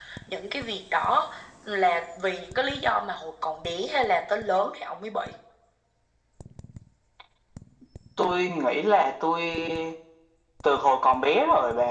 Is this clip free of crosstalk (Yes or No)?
Yes